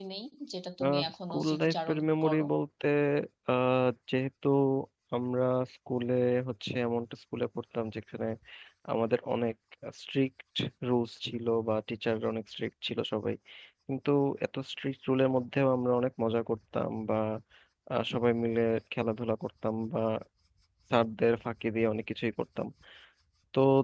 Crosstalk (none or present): present